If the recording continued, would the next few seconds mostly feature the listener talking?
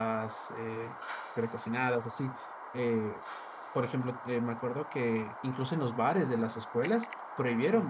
No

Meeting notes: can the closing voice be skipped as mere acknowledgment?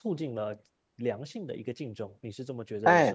No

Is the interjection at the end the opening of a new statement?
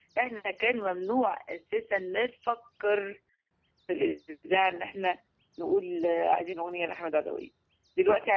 No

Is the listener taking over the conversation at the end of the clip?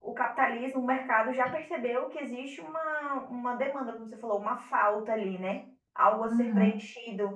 No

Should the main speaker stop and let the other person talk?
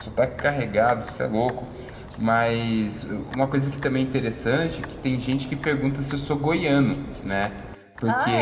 No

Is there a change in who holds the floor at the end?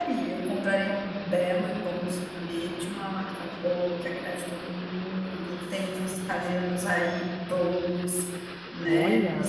No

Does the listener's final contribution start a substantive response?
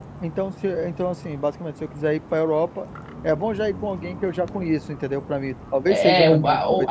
Yes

